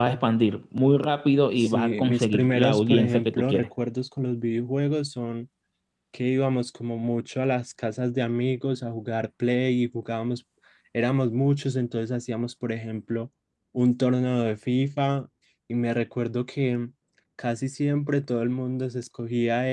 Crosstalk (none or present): present